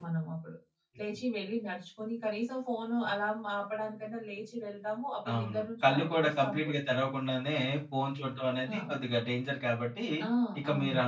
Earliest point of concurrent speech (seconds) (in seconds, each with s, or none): 5.3 s